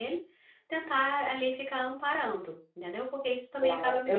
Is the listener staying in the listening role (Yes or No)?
No